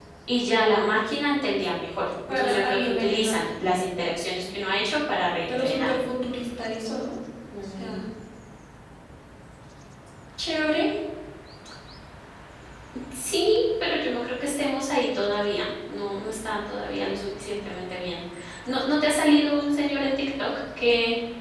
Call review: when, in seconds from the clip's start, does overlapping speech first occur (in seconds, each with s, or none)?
2.3 s